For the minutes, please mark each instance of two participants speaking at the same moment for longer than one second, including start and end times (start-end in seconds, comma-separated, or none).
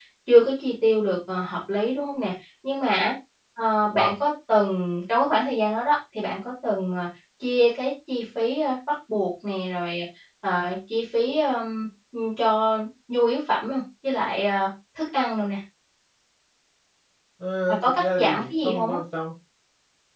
17.7-19.0